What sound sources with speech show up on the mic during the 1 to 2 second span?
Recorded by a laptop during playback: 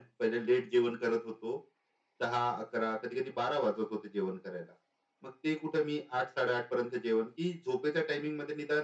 echo only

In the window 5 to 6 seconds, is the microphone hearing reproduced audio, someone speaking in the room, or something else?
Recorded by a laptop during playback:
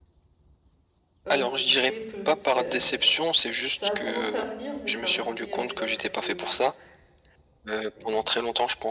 both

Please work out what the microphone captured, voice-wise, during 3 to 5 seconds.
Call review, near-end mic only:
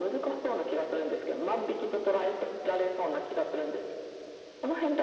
echo only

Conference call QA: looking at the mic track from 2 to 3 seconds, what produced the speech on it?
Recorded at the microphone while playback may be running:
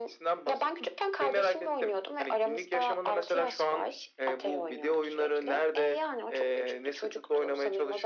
echo only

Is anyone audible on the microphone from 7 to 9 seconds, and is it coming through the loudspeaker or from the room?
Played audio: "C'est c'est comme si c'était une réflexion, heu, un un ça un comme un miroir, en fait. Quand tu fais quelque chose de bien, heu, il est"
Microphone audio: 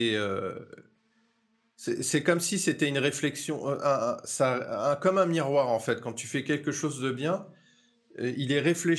echo only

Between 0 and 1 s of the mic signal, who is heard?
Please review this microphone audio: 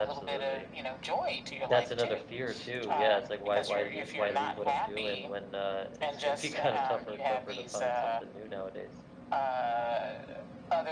both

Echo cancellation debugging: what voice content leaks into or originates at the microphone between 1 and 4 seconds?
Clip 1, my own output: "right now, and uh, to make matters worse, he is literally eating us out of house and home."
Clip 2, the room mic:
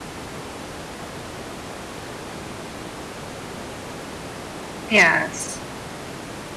neither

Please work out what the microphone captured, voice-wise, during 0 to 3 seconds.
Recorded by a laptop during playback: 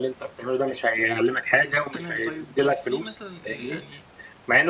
both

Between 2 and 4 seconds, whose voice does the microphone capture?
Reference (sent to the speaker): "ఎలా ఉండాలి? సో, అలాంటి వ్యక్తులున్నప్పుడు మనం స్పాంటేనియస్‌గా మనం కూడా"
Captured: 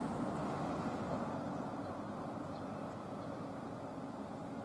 neither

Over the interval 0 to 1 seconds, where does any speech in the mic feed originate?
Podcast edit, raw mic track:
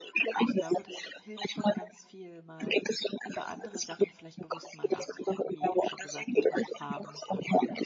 both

